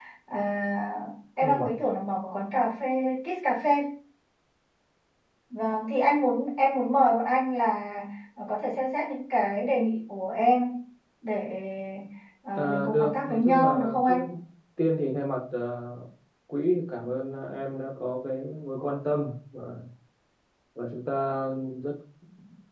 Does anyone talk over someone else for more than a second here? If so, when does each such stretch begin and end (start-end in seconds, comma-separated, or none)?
12.6-14.3